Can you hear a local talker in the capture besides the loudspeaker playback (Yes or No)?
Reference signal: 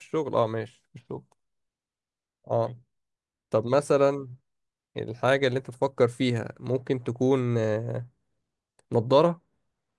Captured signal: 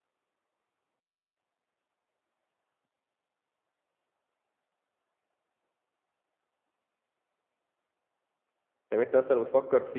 Yes